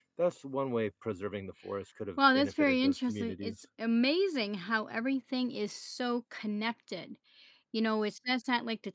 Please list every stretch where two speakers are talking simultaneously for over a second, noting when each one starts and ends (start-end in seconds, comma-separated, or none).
2.2-3.6